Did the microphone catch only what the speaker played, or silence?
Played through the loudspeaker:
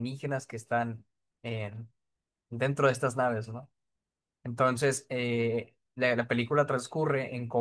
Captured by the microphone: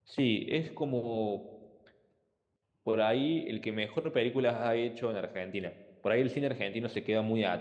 No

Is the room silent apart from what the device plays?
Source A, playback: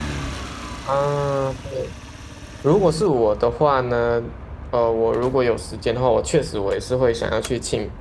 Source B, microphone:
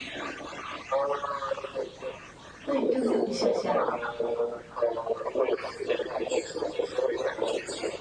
No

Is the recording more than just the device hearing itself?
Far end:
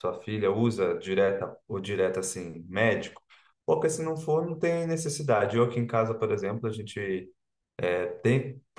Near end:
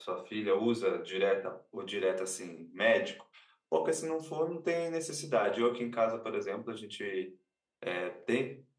No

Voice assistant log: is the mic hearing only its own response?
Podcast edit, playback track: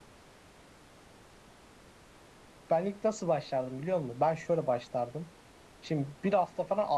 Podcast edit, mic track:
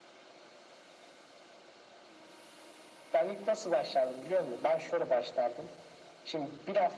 Yes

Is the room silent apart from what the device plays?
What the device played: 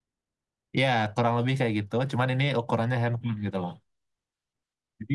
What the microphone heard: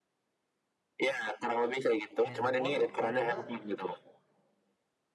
No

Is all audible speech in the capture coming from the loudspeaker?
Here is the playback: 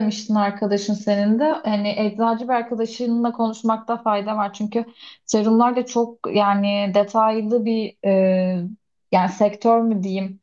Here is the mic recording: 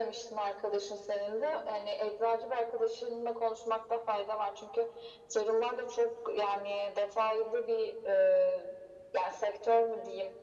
Yes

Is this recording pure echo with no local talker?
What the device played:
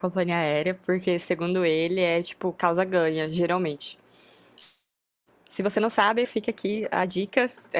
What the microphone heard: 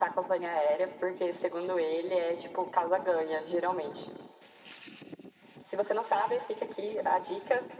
Yes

